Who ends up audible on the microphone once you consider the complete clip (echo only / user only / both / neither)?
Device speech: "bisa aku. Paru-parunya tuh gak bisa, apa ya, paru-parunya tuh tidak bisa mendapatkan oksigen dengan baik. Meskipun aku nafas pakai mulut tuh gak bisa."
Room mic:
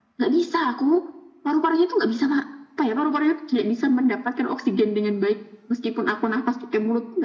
echo only